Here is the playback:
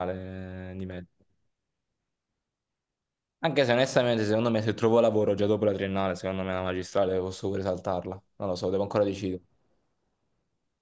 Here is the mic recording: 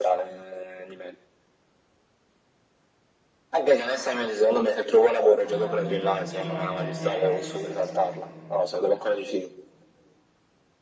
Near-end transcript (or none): Vabbè, fanno più che altro sì rock, alternative, queste cose un po' qua.